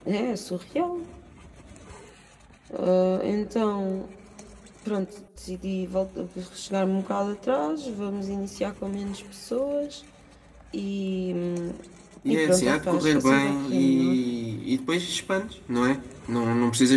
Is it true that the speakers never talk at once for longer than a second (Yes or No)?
No